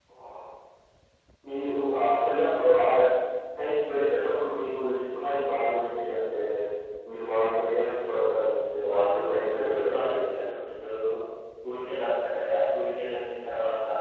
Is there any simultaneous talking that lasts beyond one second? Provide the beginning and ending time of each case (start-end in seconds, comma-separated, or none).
8.9-10.2